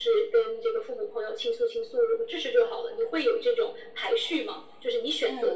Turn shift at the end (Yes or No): Yes